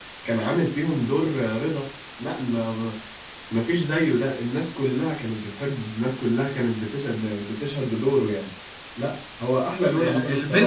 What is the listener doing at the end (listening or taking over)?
taking over